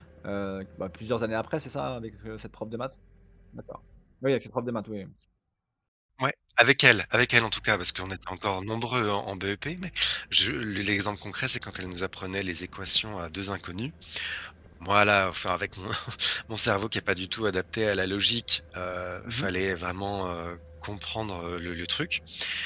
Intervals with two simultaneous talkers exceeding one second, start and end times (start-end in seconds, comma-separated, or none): none